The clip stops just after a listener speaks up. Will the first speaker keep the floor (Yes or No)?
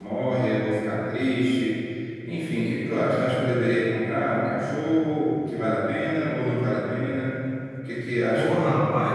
No